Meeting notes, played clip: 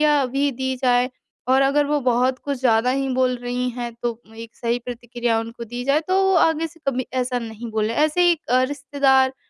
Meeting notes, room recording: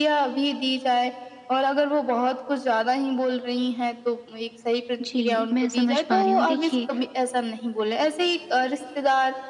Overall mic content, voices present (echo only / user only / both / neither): both